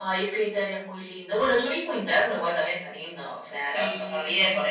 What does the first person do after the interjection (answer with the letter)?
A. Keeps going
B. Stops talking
B